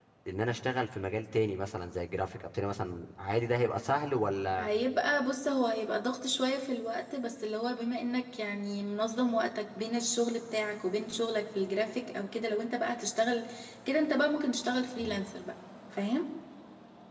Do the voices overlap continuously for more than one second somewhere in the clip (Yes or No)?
No